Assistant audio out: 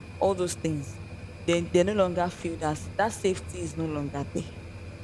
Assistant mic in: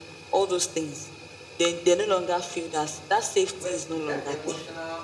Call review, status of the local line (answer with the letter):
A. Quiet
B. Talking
B